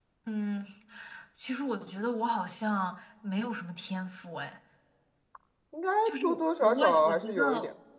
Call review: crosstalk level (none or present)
present